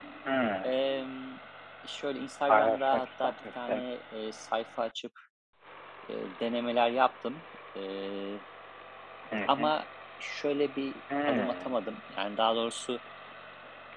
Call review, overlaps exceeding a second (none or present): present